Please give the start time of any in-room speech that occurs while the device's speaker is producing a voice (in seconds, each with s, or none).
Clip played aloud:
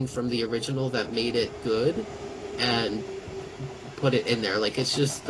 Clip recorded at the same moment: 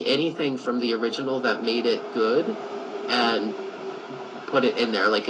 none